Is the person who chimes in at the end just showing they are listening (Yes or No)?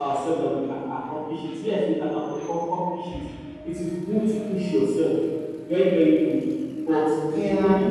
Yes